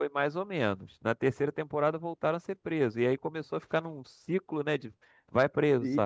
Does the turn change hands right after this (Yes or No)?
Yes